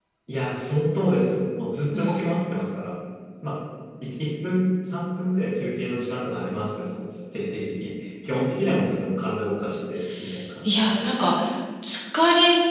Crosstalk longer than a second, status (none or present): none